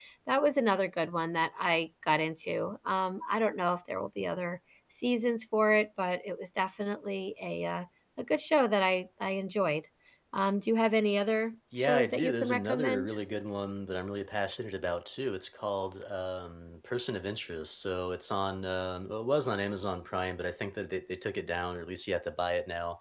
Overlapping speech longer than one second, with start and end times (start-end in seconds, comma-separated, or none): 11.8-13.1